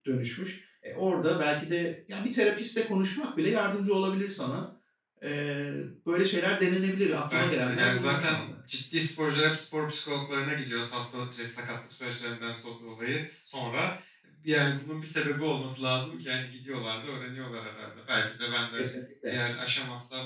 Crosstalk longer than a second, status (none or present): present